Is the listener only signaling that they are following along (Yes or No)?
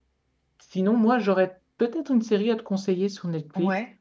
Yes